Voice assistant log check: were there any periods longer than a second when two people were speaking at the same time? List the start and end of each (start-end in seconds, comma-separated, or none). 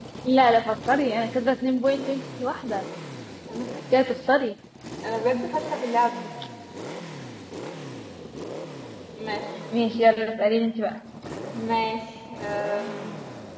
none